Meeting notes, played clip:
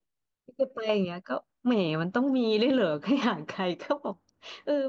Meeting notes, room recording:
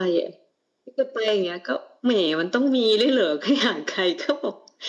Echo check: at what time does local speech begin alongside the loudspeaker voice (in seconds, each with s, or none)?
none